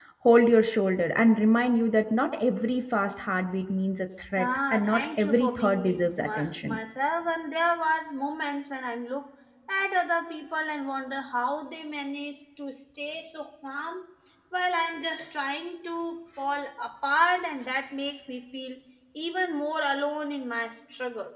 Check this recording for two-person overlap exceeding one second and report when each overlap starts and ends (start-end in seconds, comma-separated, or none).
4.4-6.8